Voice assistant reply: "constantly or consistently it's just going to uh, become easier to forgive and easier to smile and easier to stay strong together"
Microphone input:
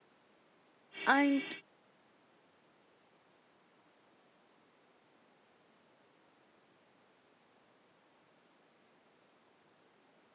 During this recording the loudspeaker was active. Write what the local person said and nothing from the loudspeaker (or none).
and